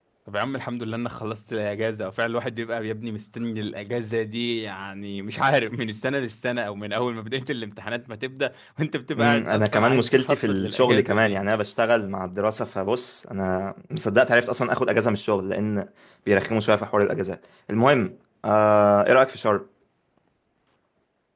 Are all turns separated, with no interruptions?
No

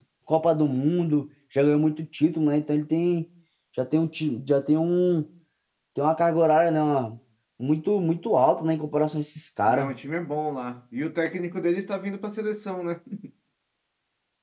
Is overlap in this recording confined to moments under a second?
Yes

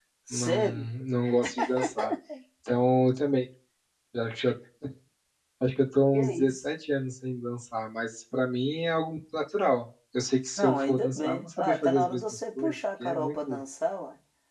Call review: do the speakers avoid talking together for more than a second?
No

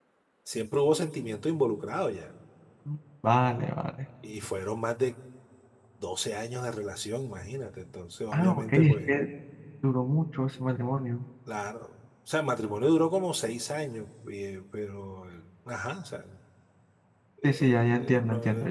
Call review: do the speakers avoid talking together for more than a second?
No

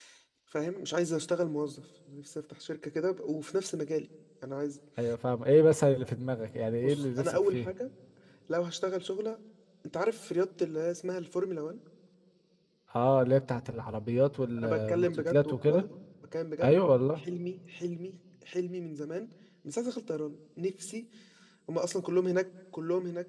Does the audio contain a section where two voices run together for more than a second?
Yes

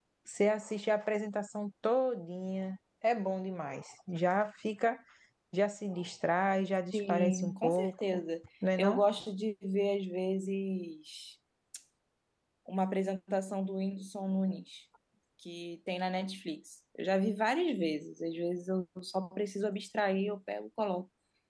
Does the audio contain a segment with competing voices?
Yes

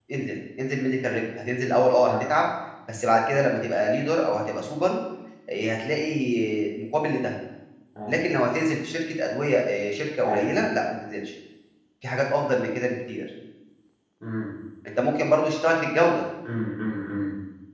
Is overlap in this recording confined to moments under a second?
Yes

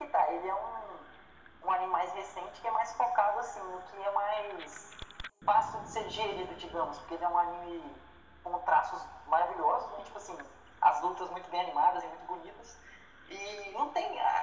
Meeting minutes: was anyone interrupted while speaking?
No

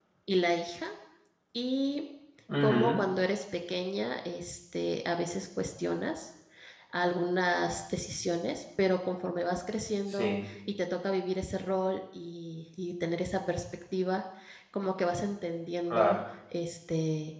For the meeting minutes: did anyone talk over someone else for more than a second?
No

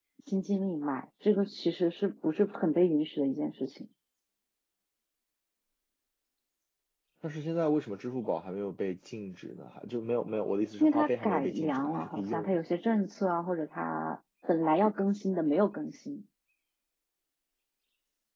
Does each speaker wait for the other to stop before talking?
No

